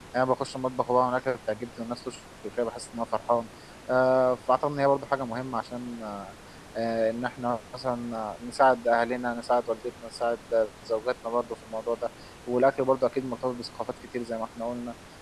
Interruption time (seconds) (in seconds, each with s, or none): none